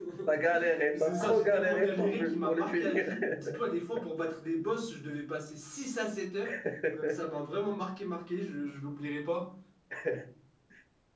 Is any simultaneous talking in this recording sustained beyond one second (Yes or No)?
Yes